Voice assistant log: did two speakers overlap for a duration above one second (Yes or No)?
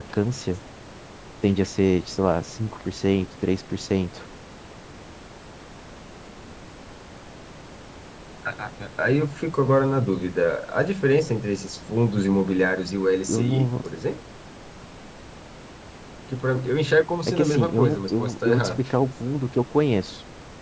Yes